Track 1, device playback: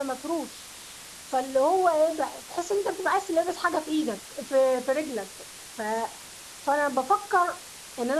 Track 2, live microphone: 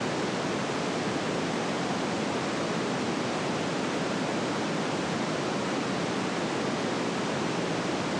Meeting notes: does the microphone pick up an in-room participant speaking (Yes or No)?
No